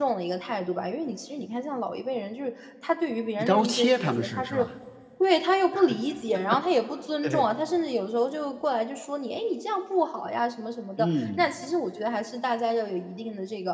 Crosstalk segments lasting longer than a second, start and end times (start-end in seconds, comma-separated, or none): 3.4-4.7